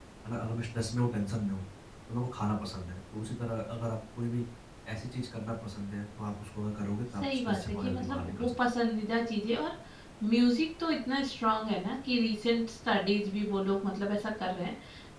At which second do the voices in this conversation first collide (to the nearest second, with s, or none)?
7 s